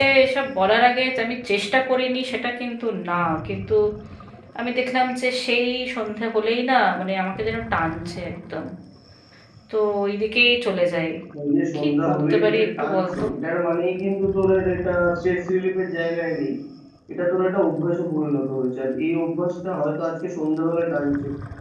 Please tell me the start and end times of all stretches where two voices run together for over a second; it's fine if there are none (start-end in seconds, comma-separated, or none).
11.7-13.2